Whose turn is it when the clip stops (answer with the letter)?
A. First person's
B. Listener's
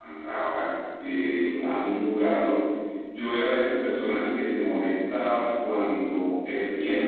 A